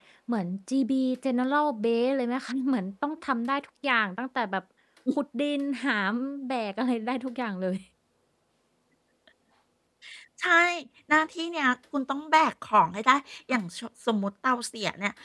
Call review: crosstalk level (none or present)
none